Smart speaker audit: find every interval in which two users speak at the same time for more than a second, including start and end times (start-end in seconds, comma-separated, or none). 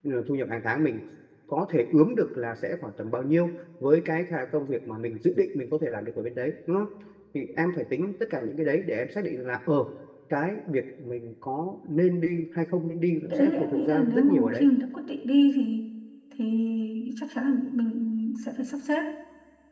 13.3-14.7